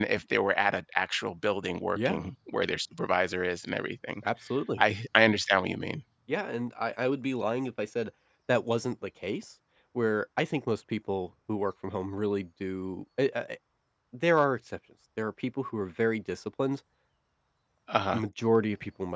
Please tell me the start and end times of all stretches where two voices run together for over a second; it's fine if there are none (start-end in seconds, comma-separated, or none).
none